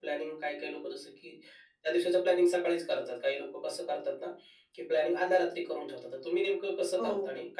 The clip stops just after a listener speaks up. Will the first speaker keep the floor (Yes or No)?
No